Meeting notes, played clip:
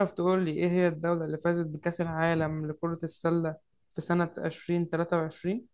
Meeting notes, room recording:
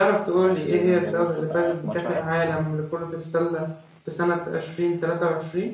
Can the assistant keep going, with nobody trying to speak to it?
No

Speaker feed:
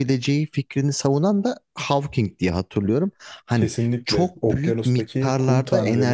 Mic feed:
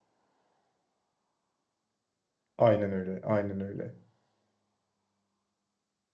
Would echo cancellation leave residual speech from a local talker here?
Yes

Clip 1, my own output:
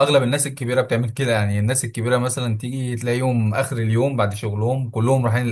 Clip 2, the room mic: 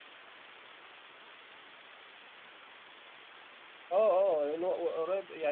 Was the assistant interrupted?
Yes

